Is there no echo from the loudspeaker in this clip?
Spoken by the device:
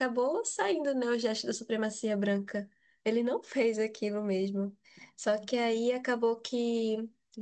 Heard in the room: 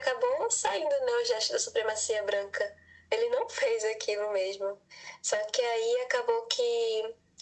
No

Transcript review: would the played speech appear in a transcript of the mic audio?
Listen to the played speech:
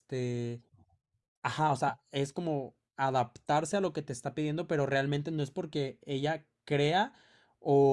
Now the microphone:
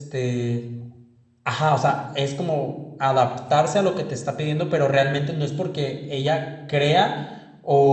Yes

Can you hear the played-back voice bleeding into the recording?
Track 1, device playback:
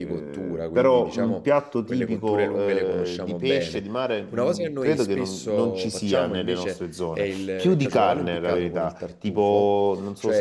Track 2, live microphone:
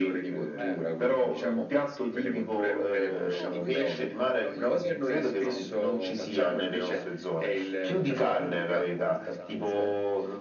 Yes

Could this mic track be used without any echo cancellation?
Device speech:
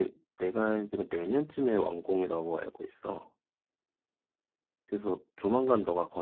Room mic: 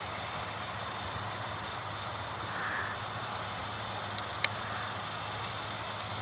Yes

